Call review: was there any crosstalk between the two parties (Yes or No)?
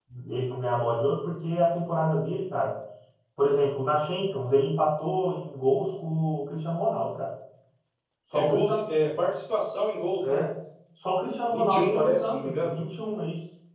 Yes